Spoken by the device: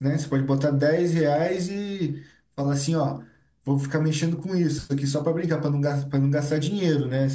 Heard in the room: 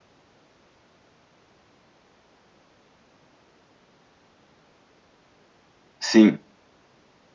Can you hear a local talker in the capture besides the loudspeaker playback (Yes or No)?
Yes